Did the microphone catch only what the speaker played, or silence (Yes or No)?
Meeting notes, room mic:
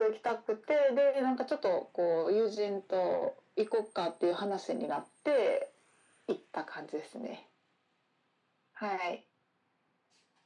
Yes